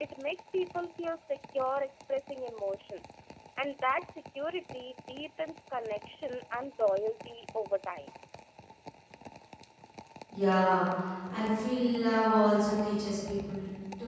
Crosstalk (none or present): none